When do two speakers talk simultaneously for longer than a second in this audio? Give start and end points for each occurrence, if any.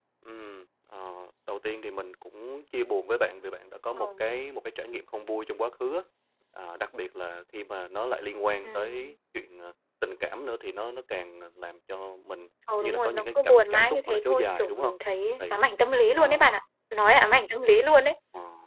12.8-14.9

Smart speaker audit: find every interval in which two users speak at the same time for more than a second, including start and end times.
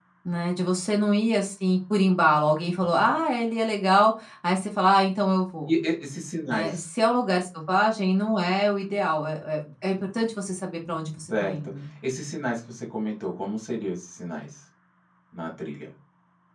none

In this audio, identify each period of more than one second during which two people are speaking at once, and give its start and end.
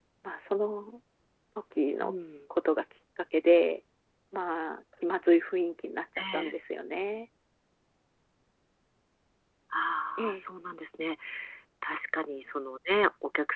none

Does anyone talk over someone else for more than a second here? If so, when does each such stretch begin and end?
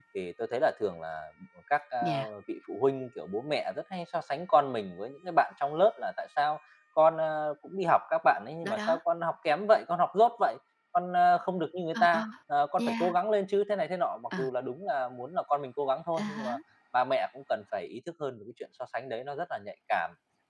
none

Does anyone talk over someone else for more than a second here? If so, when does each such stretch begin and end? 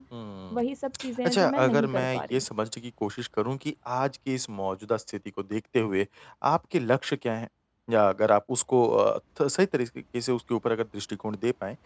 1.2-2.4

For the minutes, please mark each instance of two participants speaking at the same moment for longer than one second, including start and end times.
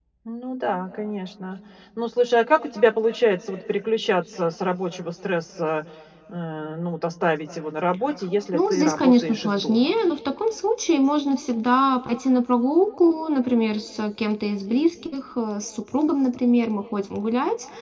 8.5-10.0

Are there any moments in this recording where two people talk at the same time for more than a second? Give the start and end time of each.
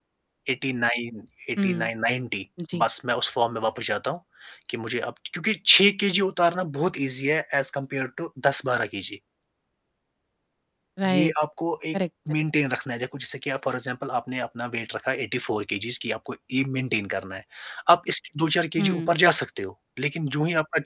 none

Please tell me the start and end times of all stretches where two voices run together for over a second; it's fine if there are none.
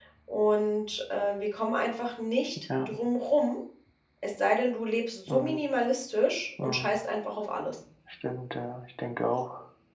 none

